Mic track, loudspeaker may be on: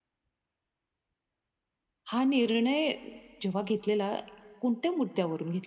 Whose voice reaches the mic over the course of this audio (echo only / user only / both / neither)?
user only